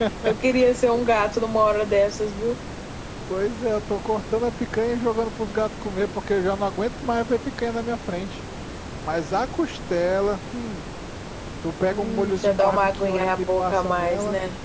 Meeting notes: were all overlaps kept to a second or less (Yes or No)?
No